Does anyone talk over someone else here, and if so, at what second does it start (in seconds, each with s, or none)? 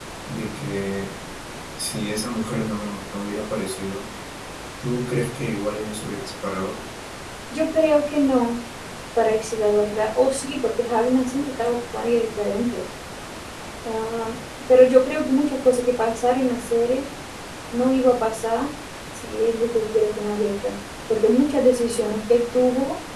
none